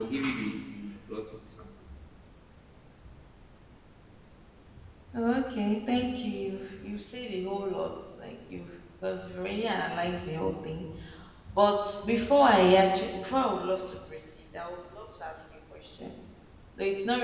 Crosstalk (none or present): none